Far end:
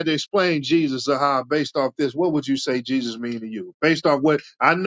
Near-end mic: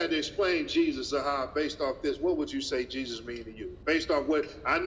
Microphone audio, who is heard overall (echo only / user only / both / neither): echo only